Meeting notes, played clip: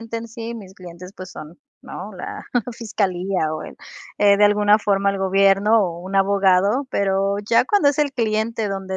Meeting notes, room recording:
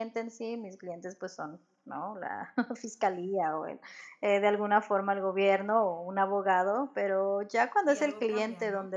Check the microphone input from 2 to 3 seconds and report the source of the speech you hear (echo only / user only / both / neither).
echo only